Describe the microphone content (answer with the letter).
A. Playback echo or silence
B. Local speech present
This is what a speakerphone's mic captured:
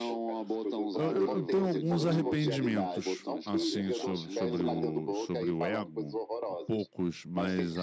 B